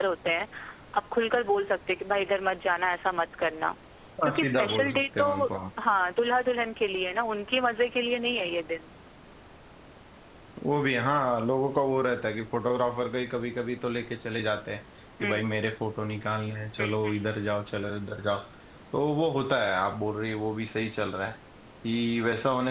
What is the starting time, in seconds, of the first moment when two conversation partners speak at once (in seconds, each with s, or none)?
4.2 s